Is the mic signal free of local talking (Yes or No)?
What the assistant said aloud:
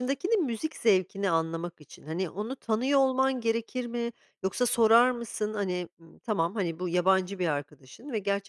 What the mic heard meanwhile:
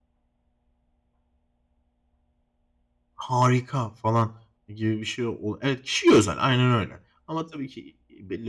No